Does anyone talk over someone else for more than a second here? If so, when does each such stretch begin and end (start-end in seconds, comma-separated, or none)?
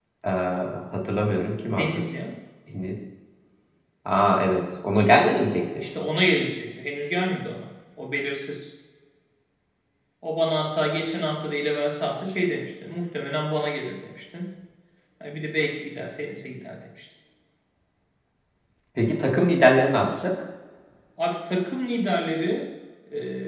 none